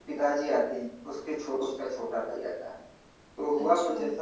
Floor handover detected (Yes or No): No